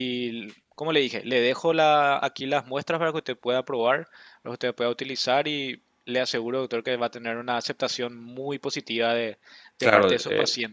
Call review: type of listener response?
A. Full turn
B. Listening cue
A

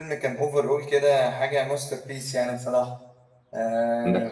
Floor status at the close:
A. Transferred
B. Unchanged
A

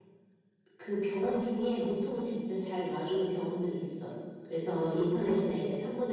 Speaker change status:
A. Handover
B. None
B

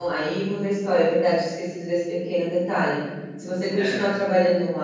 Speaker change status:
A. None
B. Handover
A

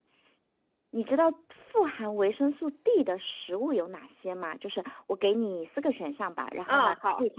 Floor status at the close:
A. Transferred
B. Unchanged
B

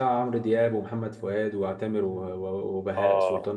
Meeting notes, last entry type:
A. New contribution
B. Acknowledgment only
A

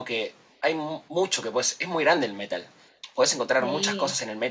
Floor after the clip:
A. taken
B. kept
B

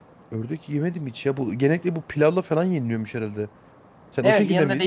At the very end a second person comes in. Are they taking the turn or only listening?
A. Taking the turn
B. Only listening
A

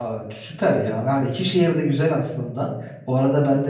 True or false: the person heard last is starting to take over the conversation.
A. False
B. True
A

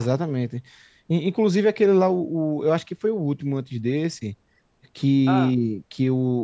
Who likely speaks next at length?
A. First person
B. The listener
A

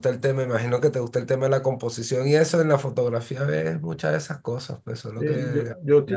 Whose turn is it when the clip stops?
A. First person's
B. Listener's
B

